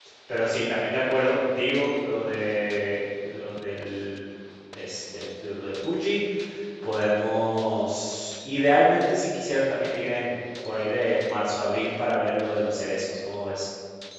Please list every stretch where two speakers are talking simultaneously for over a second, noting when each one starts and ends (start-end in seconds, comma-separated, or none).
none